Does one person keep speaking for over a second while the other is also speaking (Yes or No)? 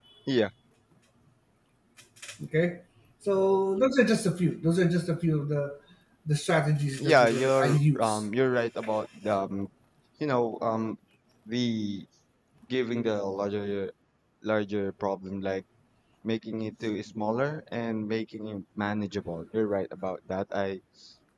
Yes